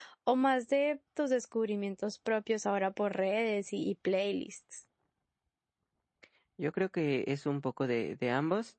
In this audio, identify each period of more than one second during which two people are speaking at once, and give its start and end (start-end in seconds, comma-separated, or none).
none